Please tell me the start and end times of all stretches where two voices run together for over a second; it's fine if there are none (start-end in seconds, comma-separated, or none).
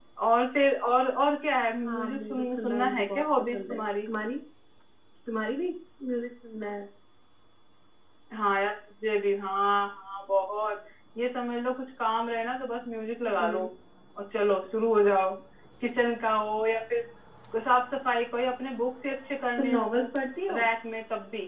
1.9-4.1